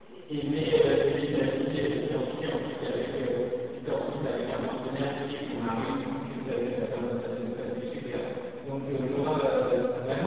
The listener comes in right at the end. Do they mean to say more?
No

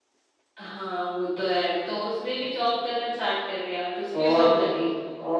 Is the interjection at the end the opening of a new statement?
Yes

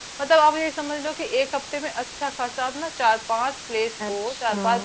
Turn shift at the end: No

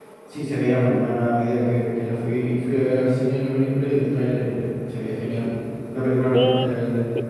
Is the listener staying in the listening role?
No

